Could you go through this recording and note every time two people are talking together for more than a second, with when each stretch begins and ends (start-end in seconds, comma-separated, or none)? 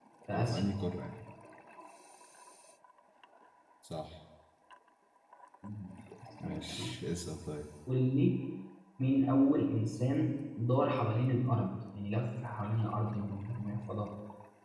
none